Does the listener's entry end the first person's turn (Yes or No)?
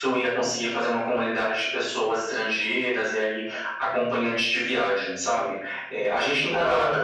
No